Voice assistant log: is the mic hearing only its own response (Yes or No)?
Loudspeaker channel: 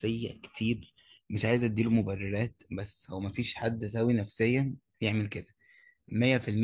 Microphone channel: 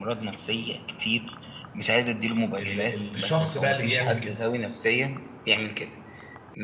No